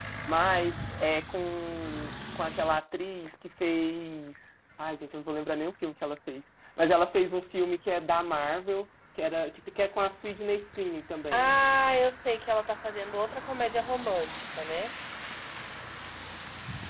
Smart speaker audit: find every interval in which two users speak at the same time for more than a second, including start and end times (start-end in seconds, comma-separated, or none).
none